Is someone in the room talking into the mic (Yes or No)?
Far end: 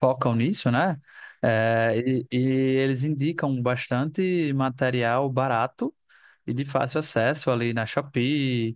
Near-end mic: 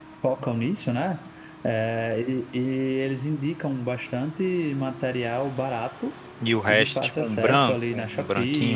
Yes